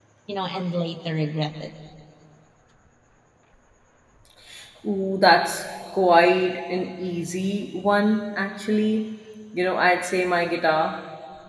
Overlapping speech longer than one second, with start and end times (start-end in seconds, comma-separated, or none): none